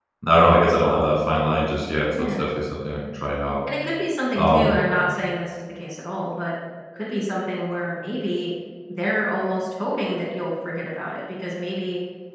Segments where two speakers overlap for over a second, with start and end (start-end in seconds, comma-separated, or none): none